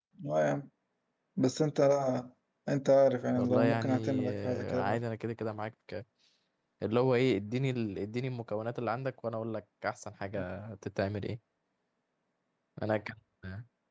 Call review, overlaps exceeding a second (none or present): present